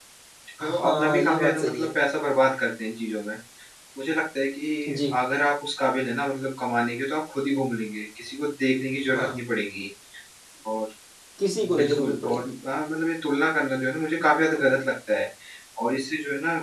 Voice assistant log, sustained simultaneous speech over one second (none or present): present